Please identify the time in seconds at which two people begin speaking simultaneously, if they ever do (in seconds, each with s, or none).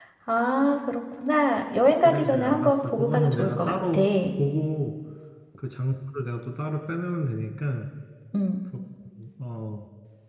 2.0 s